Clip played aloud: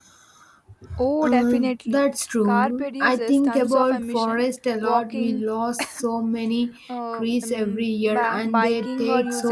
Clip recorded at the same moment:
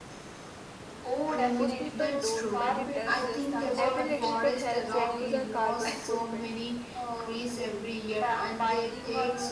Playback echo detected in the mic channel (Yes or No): Yes